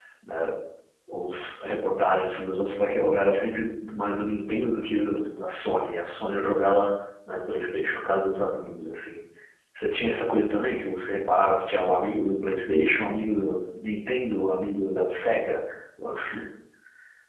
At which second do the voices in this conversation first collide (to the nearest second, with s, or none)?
none